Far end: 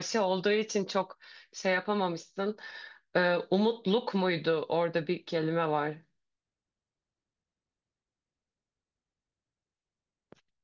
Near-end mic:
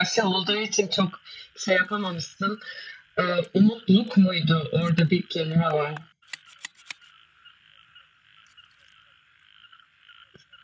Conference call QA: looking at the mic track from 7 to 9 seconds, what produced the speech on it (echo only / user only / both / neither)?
neither